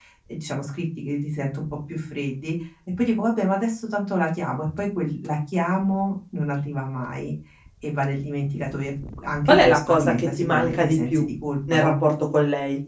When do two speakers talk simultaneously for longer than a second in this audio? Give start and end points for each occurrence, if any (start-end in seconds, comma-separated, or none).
9.5-11.3